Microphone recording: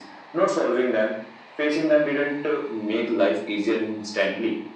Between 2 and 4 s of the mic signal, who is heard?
echo only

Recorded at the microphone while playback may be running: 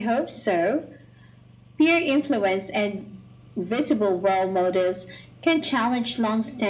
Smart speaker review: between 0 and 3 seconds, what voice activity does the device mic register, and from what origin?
echo only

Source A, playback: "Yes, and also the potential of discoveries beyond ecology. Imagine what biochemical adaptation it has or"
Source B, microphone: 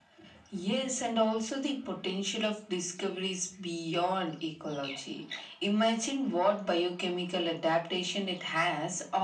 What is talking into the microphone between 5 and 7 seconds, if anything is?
echo only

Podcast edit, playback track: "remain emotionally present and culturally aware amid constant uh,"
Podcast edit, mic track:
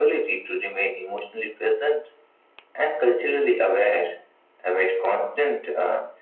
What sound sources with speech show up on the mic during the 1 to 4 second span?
echo only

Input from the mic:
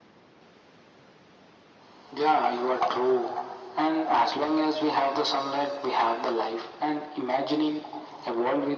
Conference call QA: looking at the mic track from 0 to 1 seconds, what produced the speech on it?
neither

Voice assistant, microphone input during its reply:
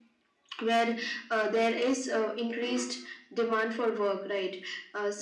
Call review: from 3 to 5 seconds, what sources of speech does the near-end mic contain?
echo only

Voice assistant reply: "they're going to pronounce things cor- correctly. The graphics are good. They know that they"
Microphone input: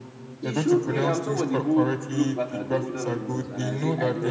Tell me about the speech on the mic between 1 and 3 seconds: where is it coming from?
both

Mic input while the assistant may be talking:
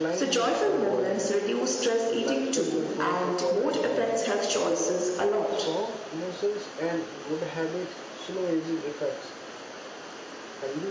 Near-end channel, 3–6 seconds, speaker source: both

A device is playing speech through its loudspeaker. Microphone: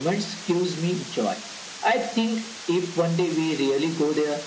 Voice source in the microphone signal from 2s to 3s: echo only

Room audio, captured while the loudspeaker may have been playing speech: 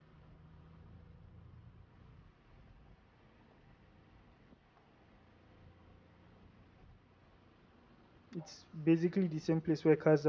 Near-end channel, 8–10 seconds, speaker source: user only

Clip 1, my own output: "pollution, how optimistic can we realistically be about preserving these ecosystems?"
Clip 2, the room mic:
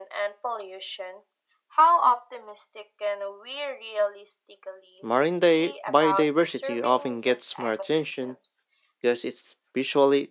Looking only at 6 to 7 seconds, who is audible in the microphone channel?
both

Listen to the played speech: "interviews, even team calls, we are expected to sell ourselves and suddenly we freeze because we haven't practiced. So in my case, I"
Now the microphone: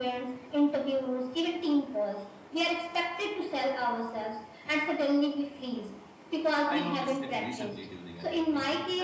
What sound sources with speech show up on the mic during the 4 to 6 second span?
echo only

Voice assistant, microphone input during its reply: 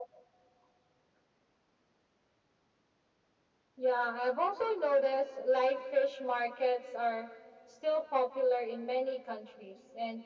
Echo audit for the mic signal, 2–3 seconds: neither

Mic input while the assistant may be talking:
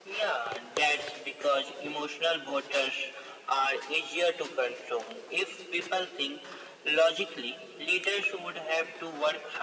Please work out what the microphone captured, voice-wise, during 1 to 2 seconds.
echo only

